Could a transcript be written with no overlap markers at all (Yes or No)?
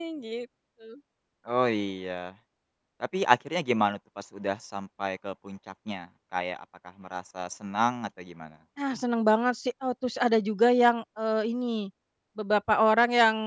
Yes